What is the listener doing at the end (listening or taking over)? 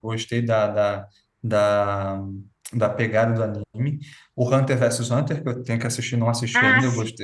listening